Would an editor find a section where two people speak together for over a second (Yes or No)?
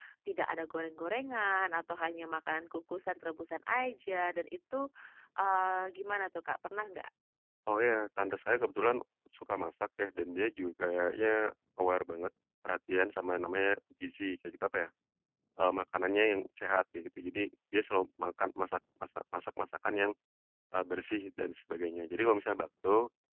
No